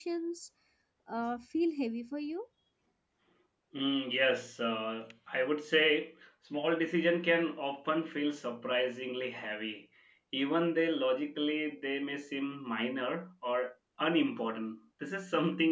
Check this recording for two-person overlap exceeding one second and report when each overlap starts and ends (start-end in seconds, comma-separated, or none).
none